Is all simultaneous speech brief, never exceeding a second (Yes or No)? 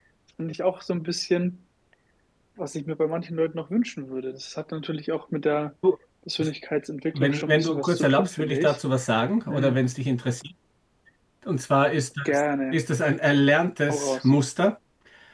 No